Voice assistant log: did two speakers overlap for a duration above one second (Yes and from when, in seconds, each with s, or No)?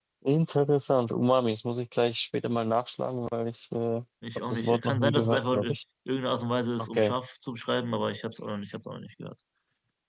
Yes, from 4.5 s